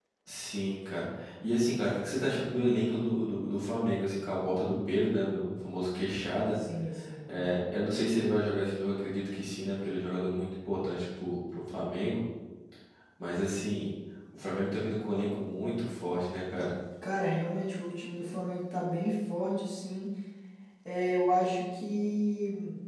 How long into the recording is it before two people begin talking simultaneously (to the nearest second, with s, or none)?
none